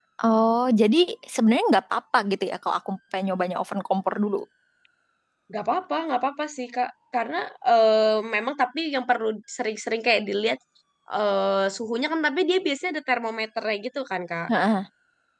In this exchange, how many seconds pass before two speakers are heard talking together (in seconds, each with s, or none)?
none